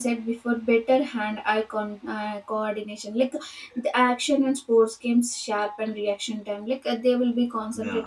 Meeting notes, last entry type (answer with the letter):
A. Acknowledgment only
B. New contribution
A